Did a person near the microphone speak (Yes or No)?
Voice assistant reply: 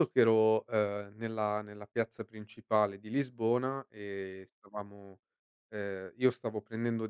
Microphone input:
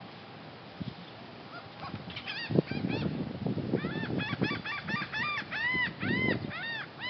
No